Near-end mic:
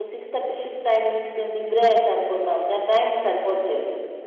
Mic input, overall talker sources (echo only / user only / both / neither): user only